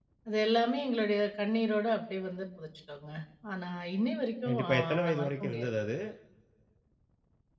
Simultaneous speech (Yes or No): Yes